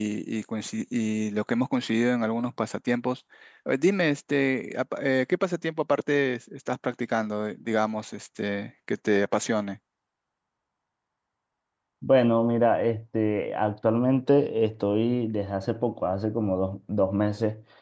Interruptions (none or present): none